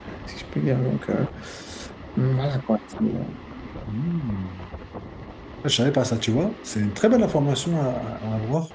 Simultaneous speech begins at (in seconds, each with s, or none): none